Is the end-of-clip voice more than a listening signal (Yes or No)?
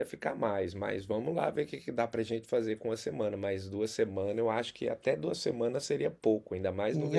Yes